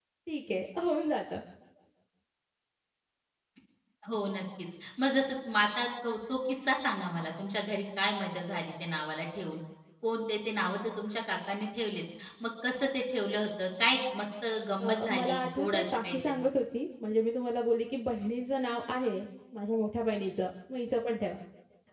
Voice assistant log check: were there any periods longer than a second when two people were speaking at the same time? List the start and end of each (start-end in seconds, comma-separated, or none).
14.8-16.4